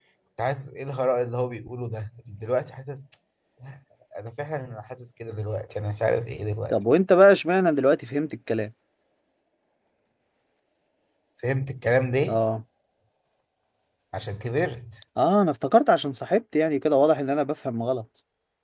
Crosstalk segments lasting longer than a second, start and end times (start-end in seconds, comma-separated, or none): none